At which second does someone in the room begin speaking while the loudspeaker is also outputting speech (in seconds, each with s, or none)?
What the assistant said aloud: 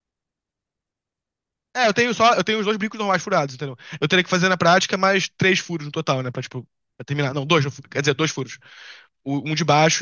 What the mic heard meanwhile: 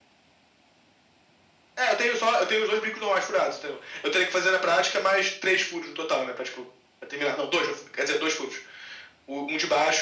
none